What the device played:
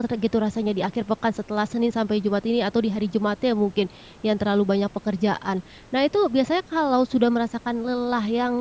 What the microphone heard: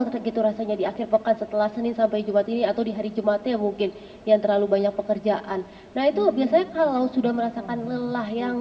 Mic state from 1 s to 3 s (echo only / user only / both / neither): echo only